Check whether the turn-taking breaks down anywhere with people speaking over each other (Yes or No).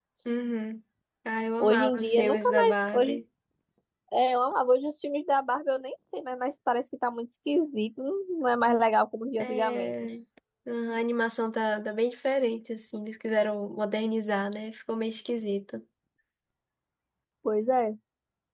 Yes